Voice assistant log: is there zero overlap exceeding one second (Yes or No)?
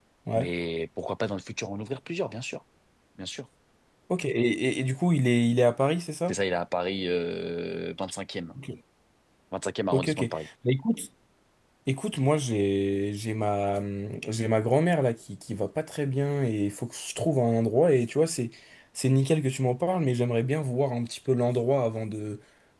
Yes